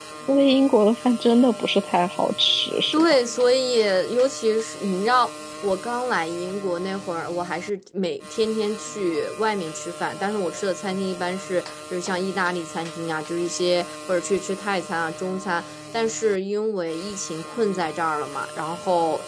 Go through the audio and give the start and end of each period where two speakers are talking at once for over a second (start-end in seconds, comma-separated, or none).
none